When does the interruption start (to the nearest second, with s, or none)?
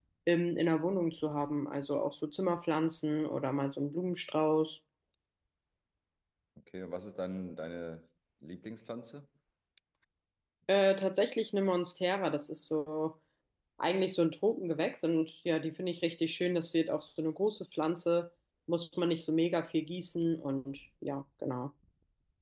none